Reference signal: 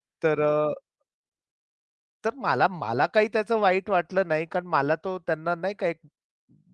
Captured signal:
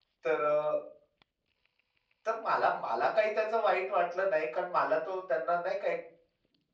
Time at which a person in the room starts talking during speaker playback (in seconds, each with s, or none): none